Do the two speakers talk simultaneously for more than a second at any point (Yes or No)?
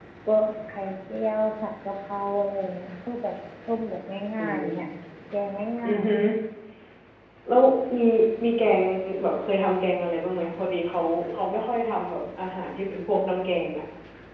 No